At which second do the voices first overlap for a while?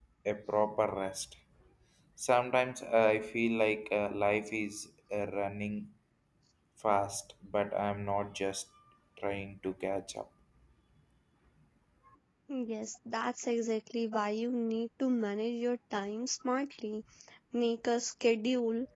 none

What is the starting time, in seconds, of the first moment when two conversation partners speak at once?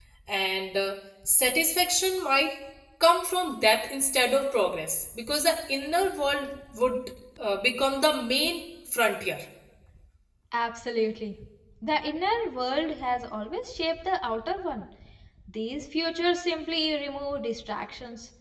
none

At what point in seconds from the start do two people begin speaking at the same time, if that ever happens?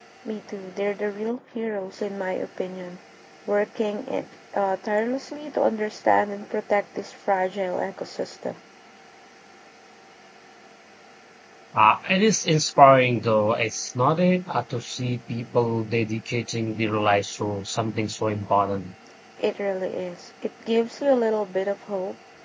none

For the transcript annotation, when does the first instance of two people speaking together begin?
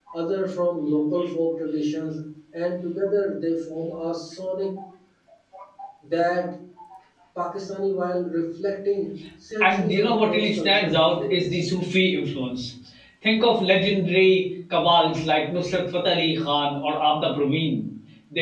9.6 s

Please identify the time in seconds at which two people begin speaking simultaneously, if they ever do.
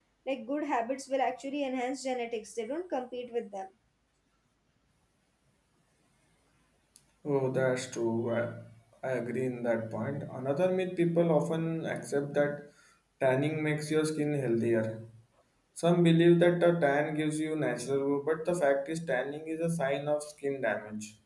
none

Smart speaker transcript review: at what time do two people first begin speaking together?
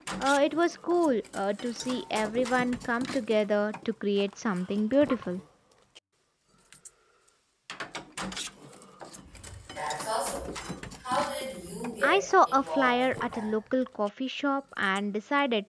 12.0 s

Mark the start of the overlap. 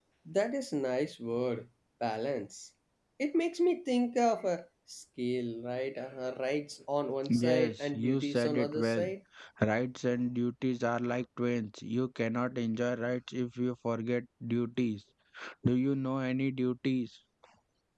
7.2 s

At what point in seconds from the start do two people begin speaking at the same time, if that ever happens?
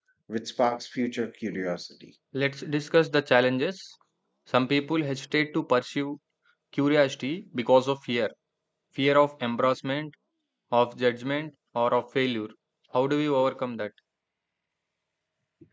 none

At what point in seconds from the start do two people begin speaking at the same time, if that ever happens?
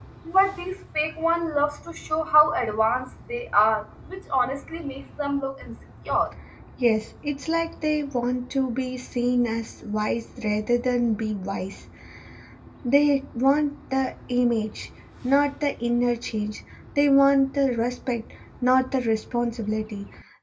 none

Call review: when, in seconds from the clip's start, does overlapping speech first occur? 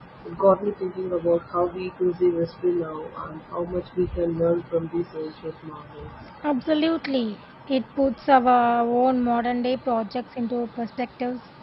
none

